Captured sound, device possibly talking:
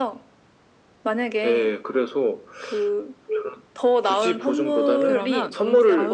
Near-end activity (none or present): present